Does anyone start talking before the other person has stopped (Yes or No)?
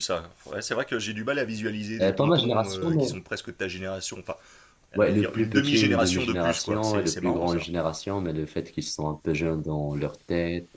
Yes